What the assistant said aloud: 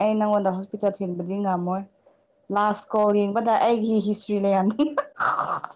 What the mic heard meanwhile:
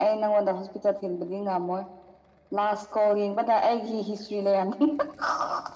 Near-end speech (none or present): none